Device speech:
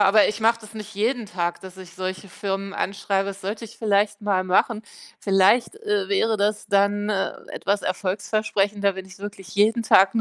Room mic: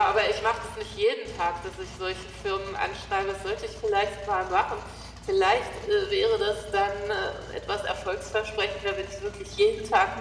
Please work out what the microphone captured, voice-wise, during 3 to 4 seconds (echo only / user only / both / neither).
echo only